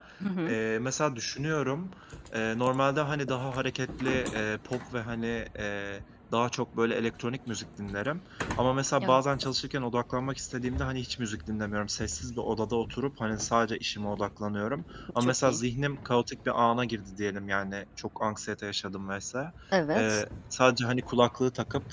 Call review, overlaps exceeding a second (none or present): none